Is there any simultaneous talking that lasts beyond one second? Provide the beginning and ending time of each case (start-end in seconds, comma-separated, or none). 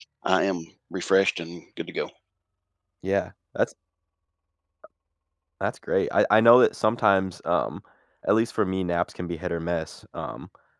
none